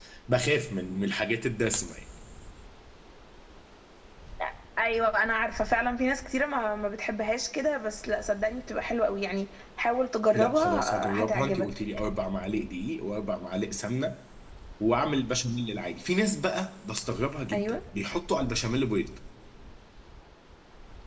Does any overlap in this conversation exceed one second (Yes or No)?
Yes